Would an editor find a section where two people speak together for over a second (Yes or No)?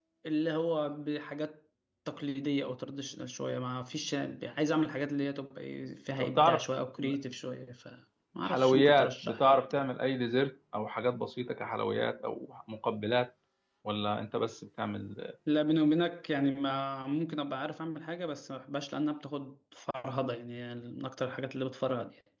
Yes